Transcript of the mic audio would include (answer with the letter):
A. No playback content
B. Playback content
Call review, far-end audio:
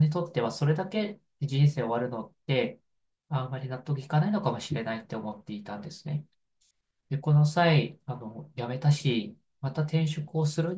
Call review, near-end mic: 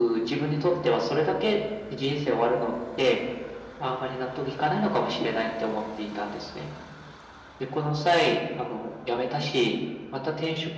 B